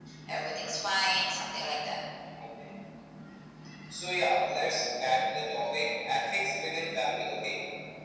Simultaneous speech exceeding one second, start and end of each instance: none

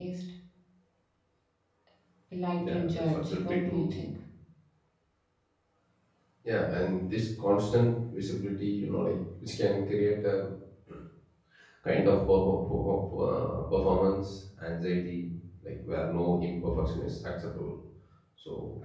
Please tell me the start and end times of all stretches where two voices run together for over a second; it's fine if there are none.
2.6-3.8

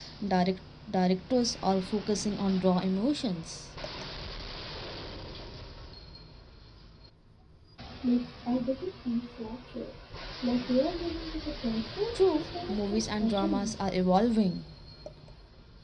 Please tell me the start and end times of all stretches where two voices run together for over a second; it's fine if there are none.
12.3-13.7

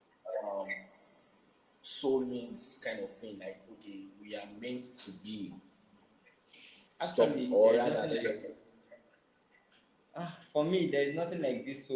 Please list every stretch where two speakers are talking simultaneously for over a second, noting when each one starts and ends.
7.0-8.3

